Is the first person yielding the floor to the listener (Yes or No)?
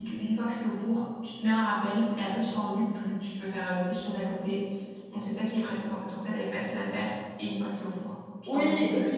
Yes